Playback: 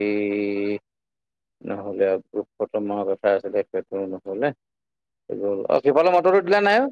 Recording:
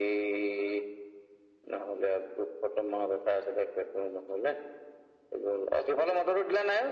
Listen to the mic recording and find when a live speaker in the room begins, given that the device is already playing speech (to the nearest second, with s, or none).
none